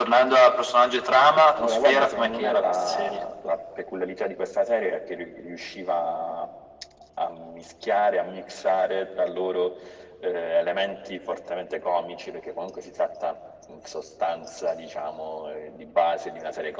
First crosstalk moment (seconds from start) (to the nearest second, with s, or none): 2 s